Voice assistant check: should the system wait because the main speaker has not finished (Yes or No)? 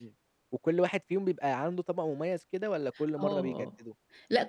No